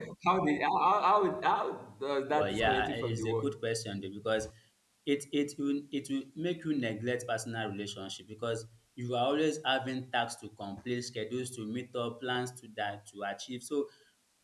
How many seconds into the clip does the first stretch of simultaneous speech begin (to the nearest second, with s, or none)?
2 s